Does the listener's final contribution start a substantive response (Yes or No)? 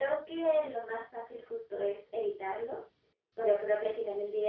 No